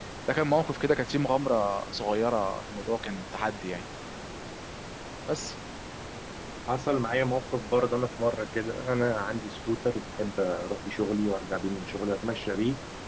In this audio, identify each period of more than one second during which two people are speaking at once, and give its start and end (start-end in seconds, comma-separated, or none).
none